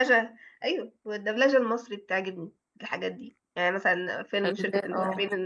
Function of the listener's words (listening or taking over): listening